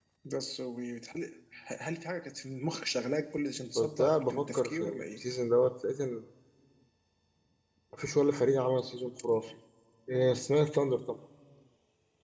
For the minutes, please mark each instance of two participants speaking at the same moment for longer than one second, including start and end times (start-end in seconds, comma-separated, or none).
3.8-5.2